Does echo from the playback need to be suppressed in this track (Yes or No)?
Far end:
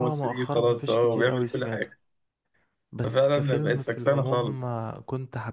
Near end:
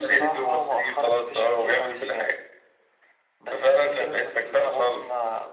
Yes